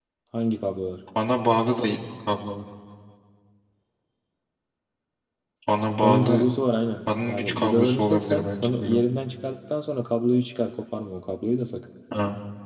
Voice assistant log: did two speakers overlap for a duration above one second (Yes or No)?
Yes